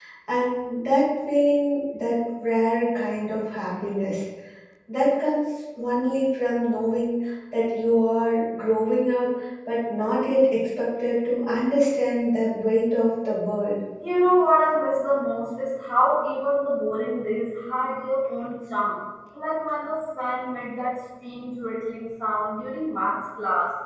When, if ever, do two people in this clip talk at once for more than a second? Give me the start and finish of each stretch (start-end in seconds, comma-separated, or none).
none